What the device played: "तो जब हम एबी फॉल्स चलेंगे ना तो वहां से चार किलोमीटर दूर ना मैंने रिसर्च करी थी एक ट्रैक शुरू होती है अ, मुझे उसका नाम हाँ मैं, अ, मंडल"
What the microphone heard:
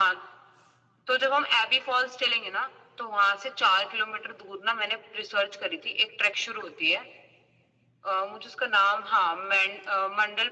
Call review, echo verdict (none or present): present